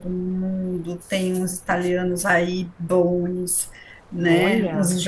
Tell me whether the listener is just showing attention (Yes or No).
Yes